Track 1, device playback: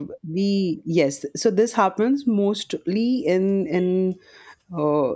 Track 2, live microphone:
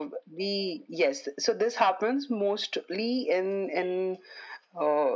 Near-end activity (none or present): none